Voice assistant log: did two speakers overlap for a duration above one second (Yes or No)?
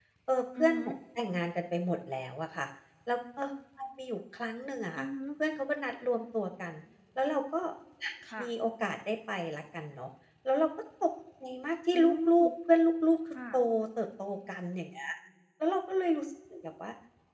No